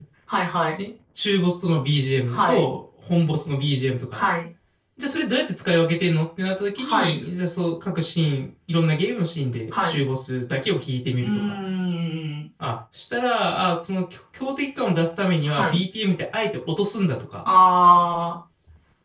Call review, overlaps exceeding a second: none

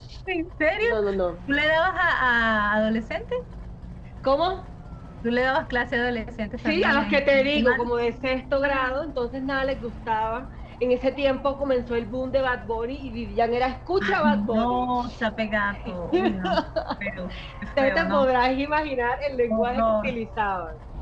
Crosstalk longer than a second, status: present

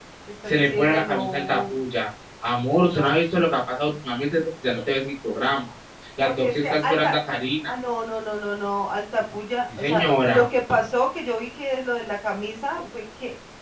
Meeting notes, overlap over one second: present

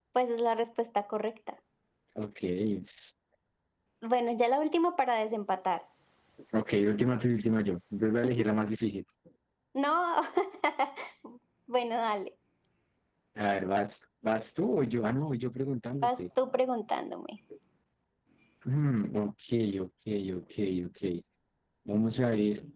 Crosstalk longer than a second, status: none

